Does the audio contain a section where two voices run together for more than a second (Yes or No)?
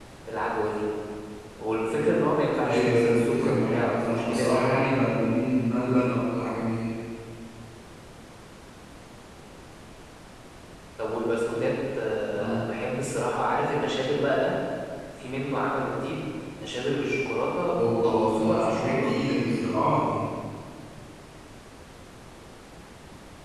Yes